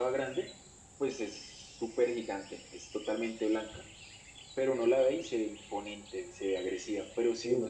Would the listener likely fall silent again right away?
Yes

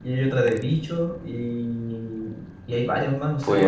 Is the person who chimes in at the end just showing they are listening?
No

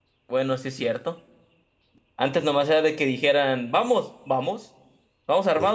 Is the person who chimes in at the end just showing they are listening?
Yes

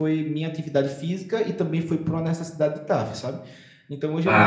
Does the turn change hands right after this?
No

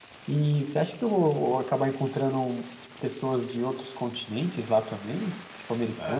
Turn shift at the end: Yes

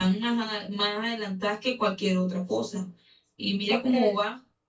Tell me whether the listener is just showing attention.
Yes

